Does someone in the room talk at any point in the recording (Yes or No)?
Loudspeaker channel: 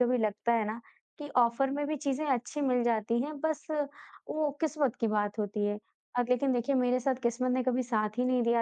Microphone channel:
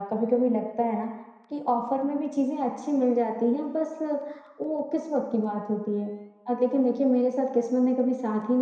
No